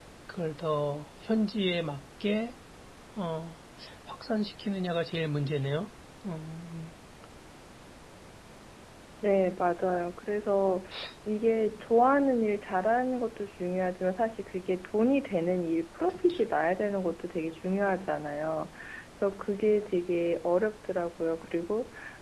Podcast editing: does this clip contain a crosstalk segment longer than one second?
No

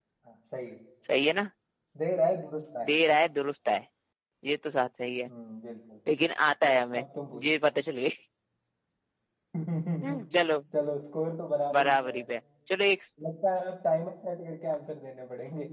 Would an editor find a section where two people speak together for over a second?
No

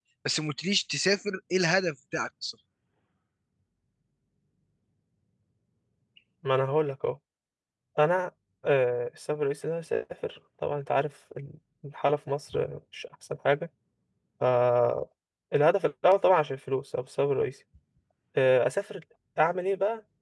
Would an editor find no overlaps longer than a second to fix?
Yes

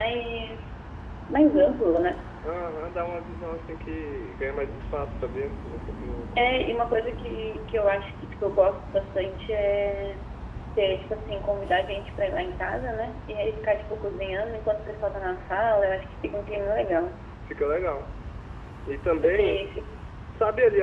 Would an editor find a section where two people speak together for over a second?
No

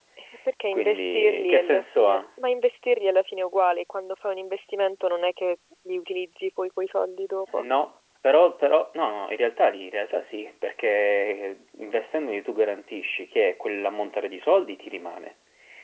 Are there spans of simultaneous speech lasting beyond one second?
Yes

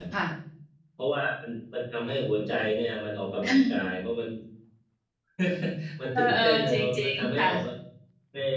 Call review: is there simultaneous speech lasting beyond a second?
Yes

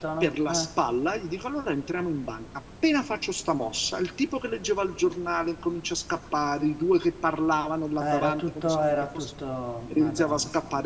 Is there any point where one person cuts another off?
Yes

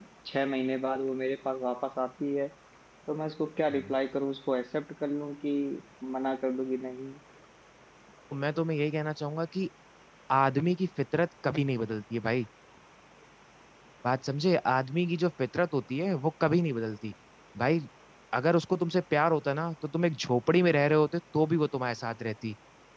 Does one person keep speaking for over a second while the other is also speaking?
No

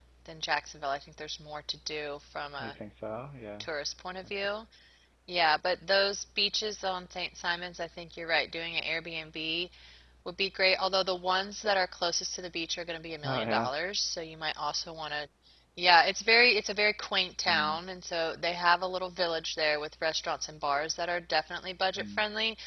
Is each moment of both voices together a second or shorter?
Yes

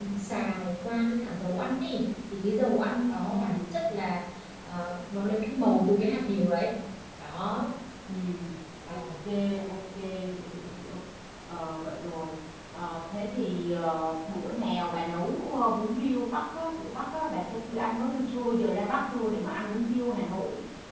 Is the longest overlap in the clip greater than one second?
No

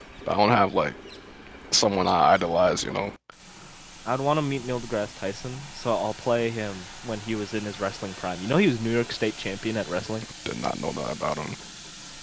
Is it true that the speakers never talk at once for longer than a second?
Yes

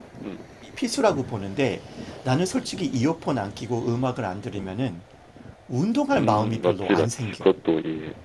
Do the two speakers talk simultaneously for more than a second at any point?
Yes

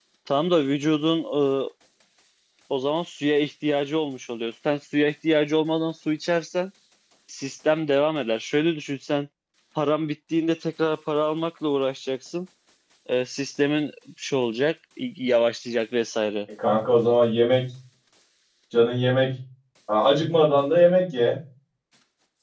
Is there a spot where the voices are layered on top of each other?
No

